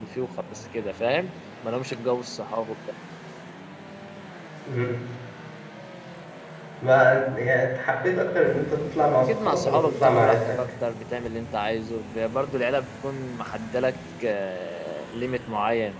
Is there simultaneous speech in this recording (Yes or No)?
Yes